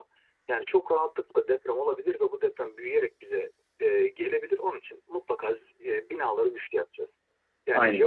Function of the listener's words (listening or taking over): listening